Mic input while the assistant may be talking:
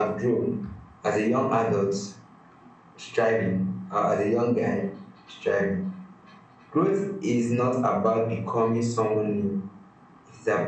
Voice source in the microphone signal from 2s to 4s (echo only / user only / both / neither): echo only